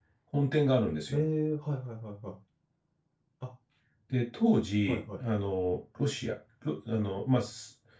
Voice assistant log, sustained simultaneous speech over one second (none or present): none